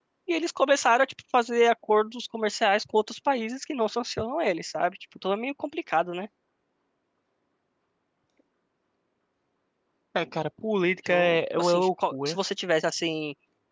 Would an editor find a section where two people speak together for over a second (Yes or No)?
Yes